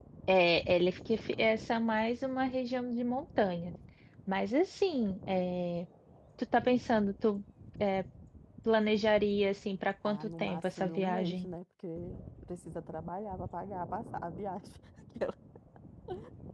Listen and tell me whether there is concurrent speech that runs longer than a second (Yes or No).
Yes